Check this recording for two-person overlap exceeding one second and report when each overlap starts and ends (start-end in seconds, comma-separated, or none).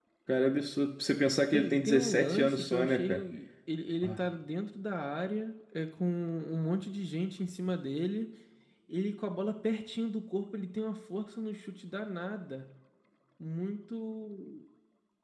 1.5-3.2